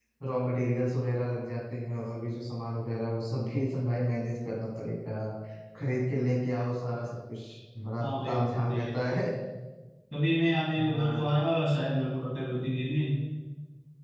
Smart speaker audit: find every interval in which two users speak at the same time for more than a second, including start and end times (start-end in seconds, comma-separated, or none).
8.0-9.2